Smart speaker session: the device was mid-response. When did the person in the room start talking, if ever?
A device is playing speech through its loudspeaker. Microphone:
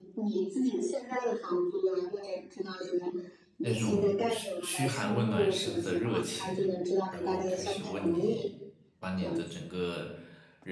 4 s

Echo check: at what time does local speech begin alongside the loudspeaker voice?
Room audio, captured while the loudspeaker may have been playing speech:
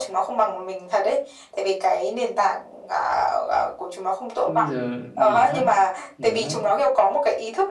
4 s

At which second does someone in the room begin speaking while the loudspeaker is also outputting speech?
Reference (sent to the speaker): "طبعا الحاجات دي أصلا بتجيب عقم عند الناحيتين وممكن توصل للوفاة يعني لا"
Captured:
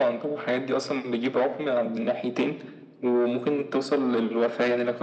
none

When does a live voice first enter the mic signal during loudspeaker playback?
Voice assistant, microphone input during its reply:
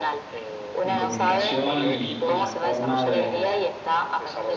1 s

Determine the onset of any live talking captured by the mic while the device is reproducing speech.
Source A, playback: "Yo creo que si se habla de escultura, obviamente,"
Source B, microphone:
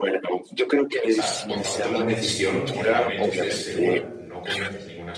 1 s

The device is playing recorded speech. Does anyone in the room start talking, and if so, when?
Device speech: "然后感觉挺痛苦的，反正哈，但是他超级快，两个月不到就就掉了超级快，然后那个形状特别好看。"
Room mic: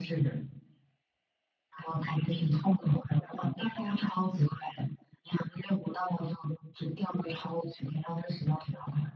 none

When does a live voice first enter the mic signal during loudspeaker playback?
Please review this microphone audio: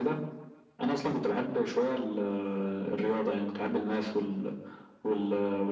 none

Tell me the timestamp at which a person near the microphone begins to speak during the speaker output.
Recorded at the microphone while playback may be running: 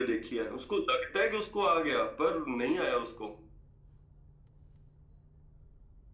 none

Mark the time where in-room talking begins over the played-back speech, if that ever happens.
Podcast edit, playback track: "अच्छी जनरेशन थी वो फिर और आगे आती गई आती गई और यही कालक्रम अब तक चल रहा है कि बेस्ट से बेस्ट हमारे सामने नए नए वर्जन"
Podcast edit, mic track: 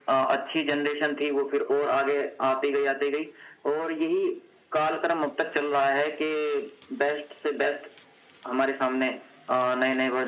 none

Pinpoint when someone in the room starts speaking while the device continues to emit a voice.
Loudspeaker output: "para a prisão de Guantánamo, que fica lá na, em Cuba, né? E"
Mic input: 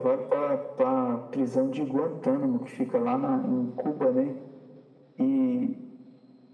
none

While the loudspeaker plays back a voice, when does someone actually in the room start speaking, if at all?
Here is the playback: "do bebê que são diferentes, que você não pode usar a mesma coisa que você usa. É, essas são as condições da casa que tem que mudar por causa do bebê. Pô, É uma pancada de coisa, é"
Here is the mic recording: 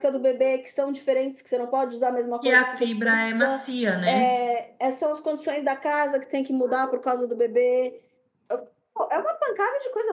2 s

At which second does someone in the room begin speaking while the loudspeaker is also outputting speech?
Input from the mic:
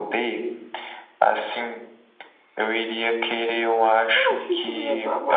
4 s

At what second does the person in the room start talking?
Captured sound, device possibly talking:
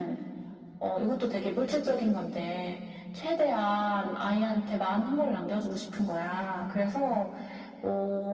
none

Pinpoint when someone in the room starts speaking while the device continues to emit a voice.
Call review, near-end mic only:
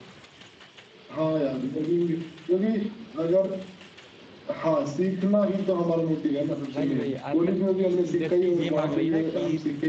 7 s

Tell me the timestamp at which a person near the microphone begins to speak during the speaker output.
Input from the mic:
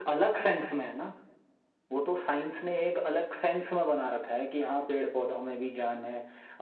none

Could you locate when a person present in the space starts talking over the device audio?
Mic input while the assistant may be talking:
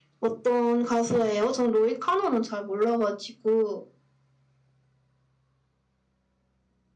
none

